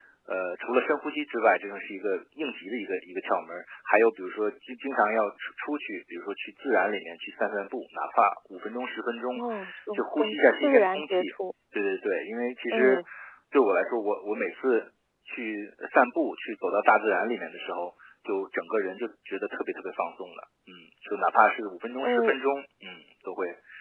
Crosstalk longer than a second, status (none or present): present